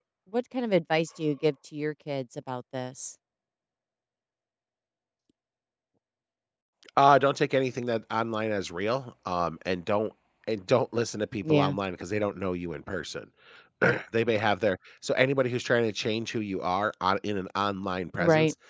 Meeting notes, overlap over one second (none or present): none